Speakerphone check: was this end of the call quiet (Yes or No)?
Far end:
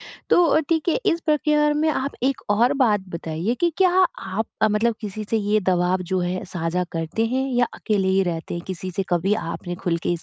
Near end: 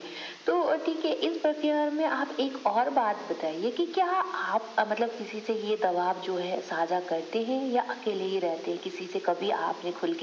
Yes